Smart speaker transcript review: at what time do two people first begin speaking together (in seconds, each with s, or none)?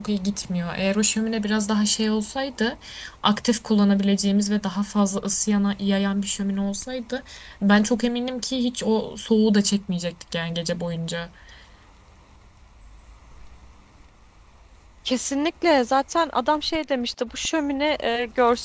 none